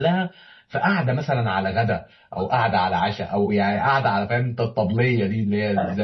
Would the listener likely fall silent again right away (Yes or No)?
No